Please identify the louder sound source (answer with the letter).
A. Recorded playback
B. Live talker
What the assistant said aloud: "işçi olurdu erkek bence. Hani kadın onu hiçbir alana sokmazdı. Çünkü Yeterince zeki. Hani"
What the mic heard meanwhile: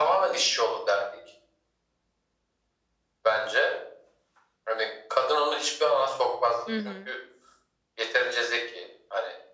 A